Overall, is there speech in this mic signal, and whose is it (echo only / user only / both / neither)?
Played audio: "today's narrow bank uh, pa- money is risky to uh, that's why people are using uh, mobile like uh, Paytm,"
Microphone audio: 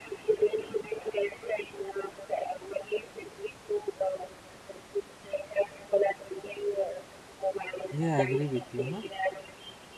both